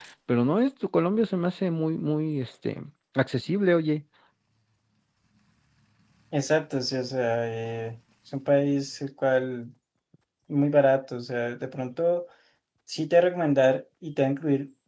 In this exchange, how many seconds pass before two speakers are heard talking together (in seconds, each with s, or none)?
none